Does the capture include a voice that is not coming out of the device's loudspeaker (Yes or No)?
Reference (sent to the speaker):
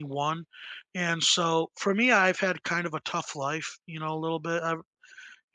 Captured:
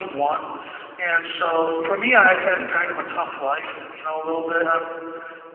Yes